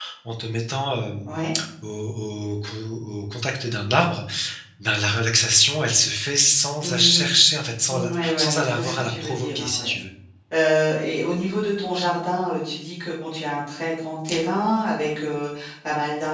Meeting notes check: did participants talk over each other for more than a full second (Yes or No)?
Yes